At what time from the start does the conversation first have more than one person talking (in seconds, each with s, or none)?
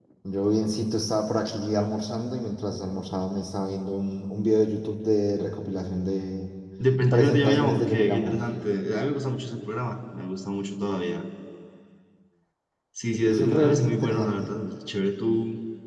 7.1 s